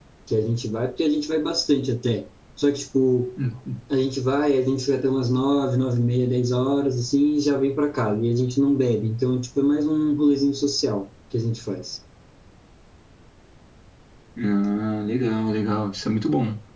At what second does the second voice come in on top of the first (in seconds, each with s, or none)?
none